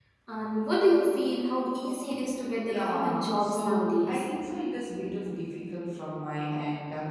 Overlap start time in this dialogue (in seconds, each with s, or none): 2.7 s